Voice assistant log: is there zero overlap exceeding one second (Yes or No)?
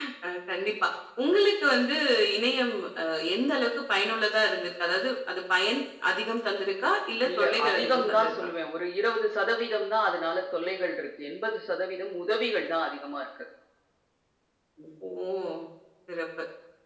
No